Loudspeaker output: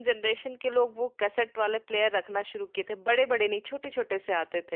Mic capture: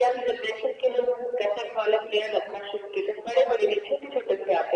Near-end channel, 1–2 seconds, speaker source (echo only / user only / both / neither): echo only